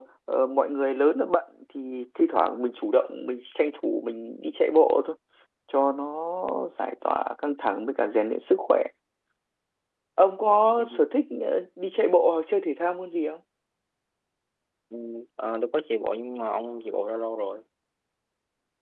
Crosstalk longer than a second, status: none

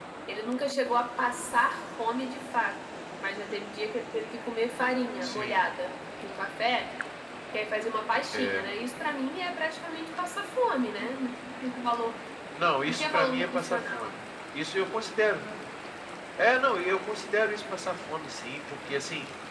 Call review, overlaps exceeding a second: present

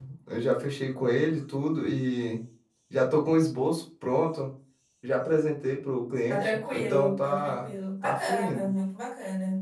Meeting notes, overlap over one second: present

